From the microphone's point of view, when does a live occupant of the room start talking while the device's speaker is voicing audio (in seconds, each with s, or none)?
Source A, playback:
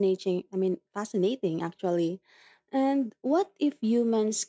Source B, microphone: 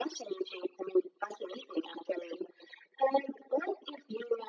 none